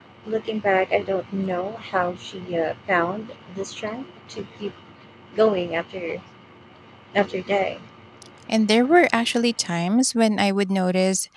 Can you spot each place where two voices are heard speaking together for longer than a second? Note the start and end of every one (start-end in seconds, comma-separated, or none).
none